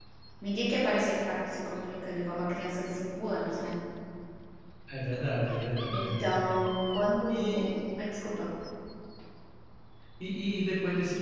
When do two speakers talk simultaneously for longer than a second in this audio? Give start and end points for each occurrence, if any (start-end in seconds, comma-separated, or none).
none